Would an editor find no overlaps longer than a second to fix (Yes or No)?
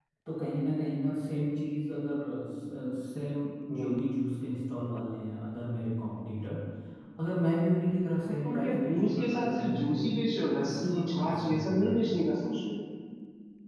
No